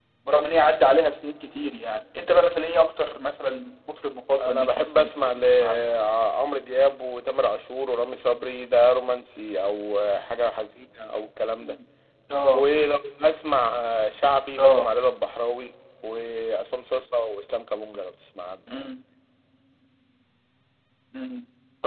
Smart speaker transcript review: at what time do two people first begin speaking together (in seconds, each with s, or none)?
4.4 s